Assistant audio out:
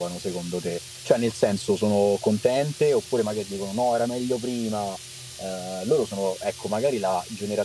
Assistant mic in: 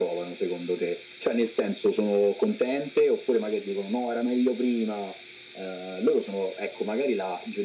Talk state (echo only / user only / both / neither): echo only